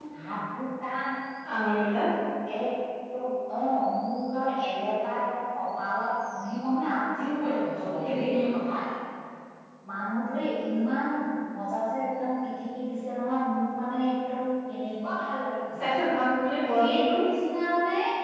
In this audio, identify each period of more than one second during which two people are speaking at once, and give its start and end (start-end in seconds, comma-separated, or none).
none